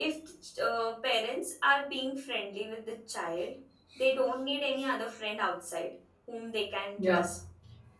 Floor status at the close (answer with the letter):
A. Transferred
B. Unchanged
B